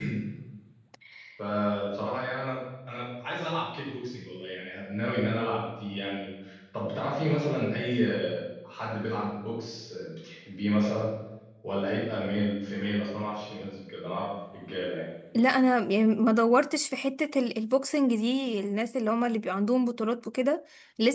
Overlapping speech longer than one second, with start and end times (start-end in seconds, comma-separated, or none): none